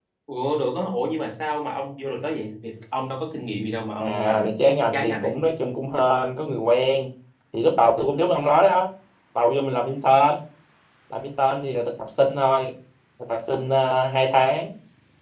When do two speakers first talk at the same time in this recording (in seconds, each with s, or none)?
4.0 s